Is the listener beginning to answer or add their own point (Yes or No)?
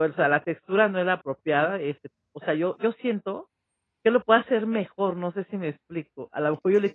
No